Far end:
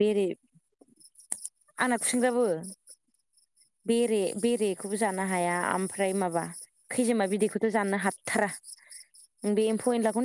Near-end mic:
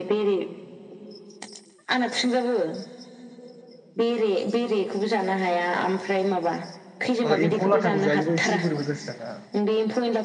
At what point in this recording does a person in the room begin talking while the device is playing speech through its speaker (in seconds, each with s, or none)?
7.3 s